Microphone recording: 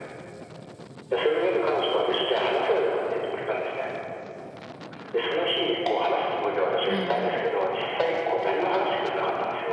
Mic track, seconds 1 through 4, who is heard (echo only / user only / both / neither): echo only